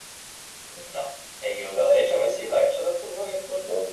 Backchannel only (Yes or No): Yes